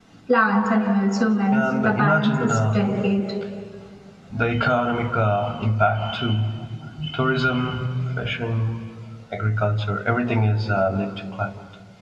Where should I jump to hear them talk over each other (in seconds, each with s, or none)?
1.5 s